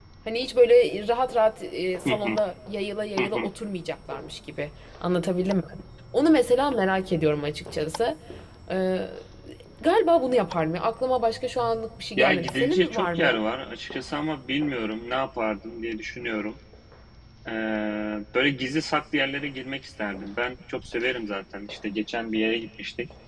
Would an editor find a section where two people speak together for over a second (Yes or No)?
Yes